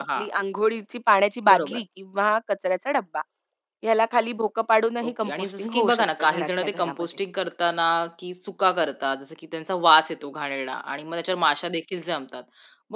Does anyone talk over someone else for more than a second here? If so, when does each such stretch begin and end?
5.1-7.1

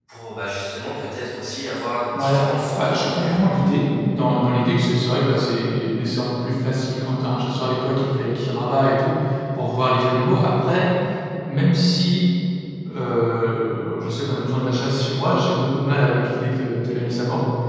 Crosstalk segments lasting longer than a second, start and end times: 2.1-3.4

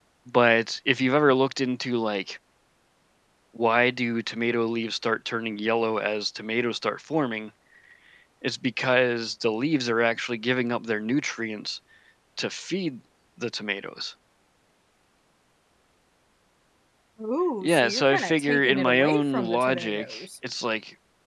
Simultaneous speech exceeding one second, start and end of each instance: 17.6-20.2

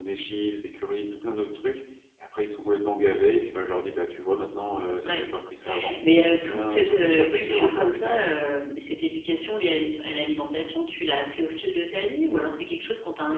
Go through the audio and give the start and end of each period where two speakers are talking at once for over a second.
6.4-8.2

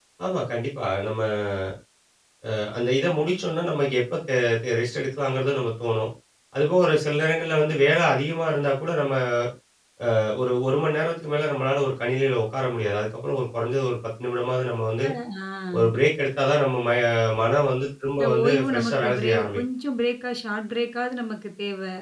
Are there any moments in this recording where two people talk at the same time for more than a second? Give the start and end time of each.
18.2-19.6

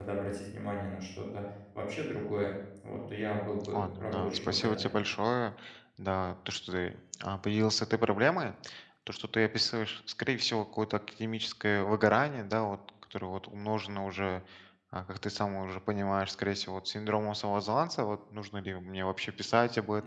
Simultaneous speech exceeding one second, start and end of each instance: 3.7-5.0

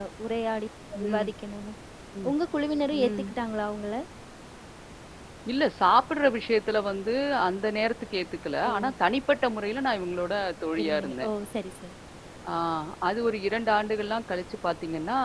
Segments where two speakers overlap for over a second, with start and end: none

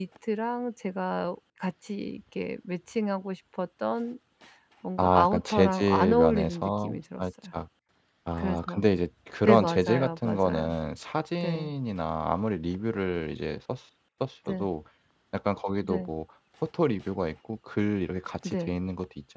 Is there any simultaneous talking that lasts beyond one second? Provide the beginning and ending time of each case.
5.0-7.2, 9.4-10.7

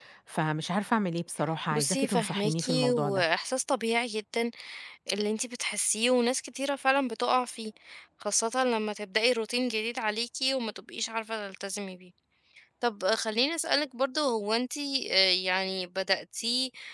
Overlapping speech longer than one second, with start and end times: 1.7-3.2

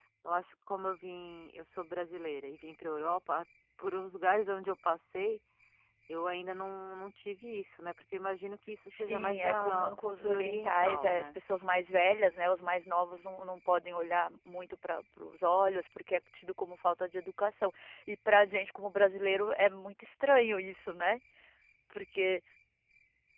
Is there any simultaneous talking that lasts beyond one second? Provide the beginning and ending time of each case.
8.9-11.4

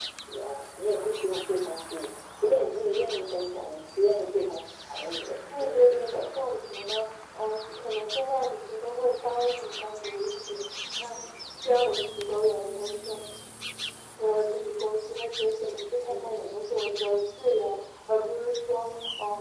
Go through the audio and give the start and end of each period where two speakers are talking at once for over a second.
5.5-7.0

